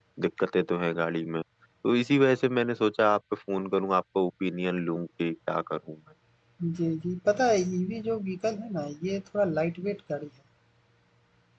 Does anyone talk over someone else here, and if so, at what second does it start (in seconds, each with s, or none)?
none